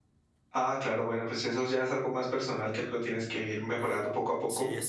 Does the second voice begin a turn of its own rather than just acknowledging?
Yes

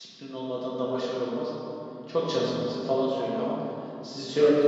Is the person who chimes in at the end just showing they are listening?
Yes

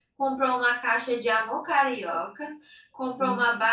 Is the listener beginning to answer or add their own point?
No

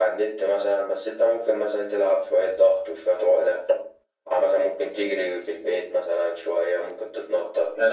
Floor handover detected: Yes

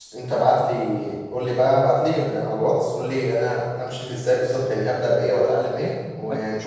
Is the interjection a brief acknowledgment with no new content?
No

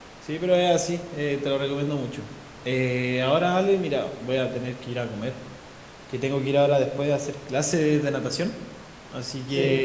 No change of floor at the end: Yes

